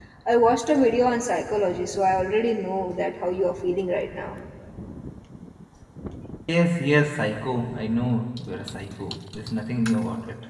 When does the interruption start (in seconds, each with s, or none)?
none